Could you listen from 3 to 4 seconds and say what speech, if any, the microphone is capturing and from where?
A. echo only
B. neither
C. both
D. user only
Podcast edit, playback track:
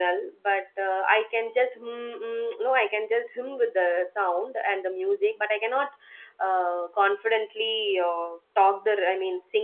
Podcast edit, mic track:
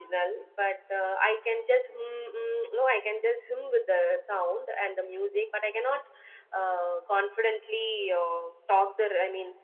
A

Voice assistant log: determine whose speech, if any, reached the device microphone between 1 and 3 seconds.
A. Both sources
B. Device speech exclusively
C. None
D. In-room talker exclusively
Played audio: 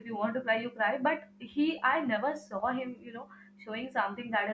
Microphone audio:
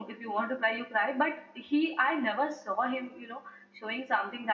B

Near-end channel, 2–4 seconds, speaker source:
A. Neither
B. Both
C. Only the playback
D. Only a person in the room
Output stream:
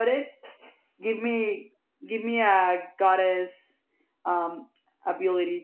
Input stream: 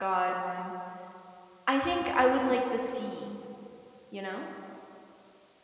D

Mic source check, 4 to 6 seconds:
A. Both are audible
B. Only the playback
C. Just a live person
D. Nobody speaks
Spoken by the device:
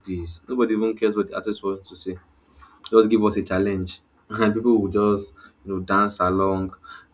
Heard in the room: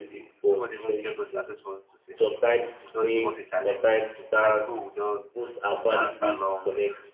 A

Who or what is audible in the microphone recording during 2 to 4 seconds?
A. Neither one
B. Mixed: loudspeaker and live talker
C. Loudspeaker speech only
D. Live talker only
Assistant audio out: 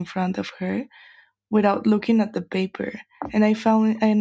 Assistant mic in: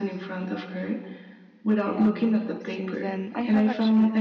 B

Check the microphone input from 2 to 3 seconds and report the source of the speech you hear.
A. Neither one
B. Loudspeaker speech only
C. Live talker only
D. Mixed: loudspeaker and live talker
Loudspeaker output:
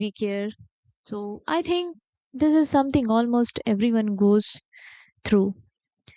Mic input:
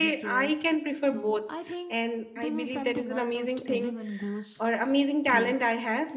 D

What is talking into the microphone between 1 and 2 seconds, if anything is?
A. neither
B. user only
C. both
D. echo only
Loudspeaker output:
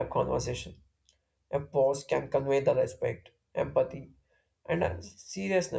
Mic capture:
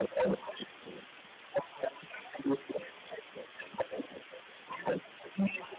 D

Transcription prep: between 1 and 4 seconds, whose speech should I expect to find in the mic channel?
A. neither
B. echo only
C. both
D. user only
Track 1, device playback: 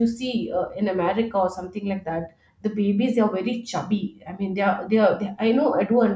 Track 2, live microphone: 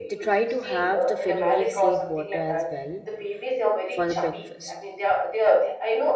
C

